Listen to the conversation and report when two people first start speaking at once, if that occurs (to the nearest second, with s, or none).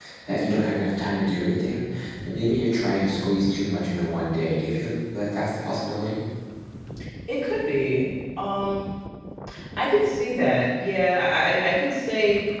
none